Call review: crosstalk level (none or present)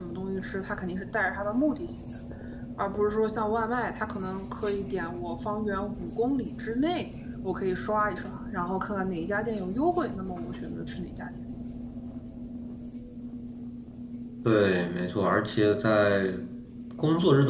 none